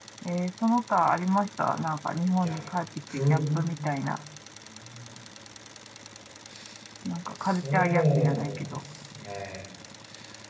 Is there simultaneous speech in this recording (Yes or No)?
Yes